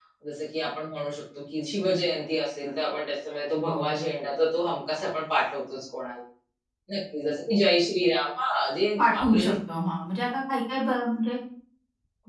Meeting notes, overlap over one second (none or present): none